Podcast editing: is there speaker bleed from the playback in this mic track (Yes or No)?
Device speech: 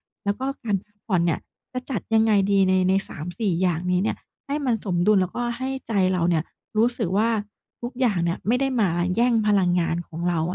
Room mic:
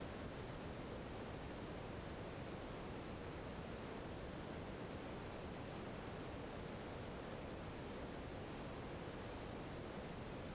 No